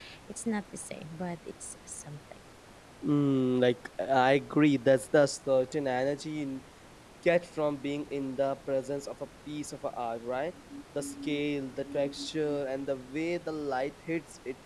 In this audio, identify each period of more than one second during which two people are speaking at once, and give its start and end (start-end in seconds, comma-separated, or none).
none